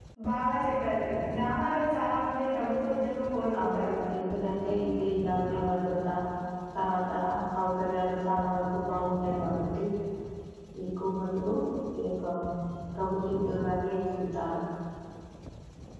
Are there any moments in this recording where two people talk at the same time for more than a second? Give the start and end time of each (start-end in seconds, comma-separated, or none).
none